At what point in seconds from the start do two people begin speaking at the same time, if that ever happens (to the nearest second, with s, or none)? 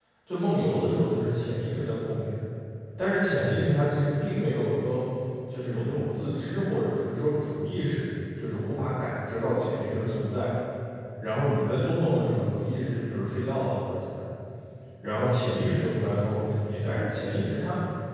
none